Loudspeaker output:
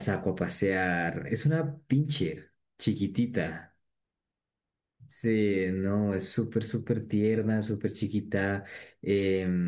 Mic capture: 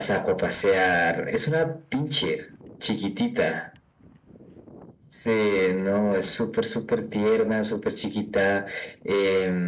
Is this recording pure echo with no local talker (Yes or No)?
Yes